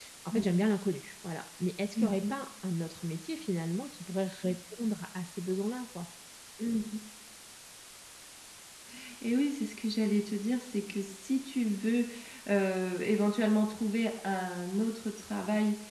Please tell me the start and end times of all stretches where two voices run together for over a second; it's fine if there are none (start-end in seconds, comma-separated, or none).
none